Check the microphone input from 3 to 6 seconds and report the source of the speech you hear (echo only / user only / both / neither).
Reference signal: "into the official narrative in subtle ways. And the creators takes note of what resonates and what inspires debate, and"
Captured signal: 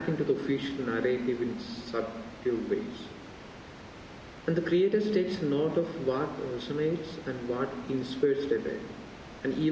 echo only